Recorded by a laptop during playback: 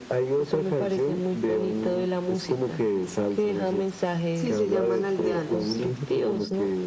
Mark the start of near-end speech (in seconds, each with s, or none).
4.3 s